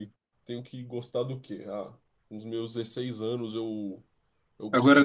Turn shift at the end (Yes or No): No